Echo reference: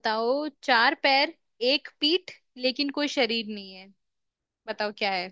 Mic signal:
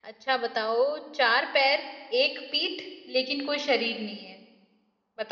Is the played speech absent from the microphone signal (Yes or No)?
No